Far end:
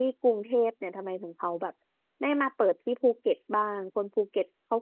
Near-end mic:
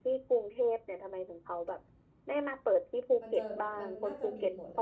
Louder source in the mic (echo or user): echo